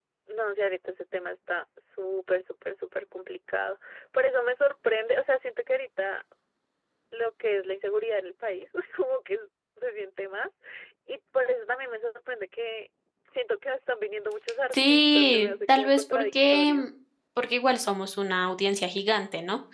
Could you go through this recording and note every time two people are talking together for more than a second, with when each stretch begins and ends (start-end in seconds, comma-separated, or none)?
14.7-16.8